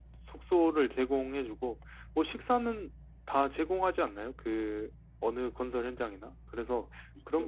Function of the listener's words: listening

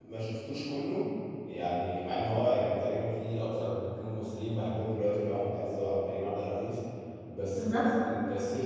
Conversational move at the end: listening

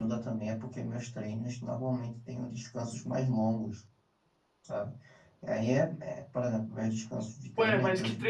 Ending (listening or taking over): taking over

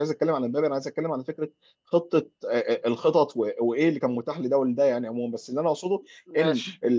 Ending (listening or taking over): listening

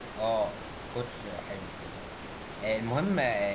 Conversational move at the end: listening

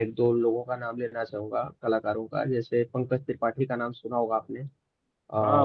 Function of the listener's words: taking over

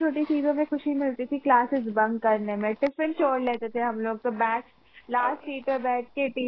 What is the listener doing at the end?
listening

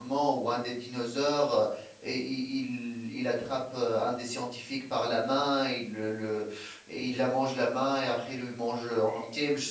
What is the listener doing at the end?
listening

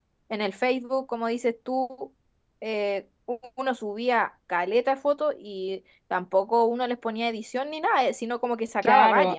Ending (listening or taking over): taking over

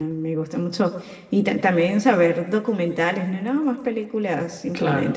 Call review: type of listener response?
listening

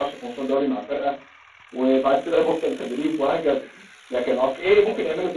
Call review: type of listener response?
listening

